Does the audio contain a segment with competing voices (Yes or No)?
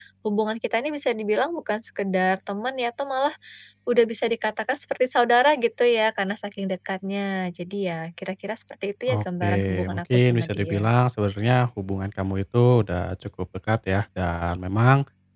Yes